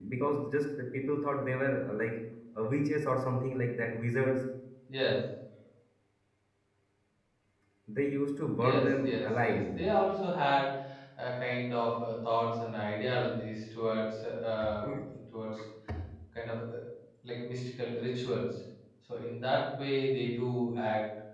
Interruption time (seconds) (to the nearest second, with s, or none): 9 s